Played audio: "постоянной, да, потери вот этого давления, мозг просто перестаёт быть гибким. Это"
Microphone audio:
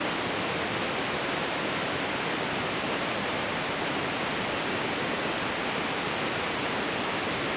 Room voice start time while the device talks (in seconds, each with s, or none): none